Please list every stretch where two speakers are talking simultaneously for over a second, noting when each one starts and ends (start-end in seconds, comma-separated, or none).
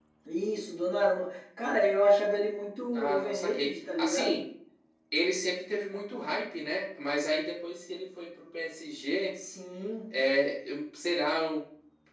2.9-4.4